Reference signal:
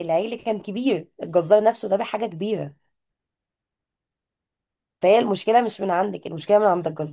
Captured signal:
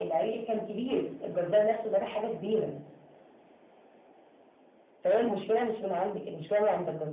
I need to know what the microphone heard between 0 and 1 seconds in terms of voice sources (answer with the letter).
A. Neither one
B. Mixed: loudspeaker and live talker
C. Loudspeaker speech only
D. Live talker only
C